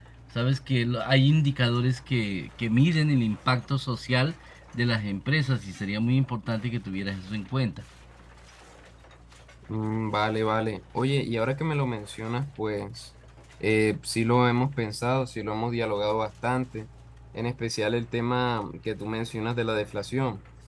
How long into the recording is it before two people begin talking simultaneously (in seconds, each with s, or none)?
none